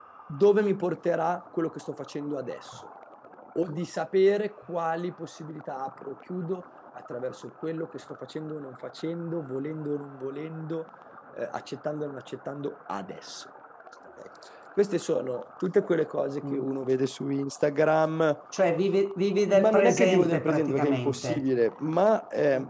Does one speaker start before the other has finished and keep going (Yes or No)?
Yes